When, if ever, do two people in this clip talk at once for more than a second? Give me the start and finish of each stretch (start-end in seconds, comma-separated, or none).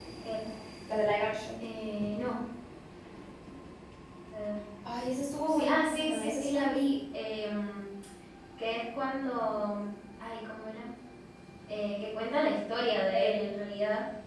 5.4-6.8